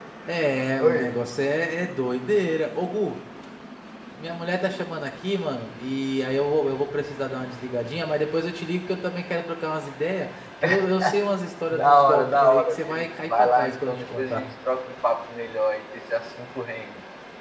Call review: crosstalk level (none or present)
present